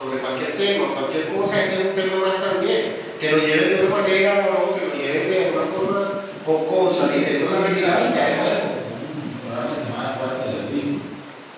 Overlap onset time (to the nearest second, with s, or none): 7 s